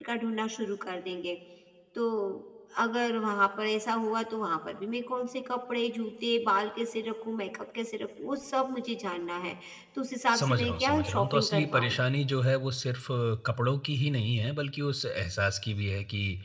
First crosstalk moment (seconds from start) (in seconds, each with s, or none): 10.3 s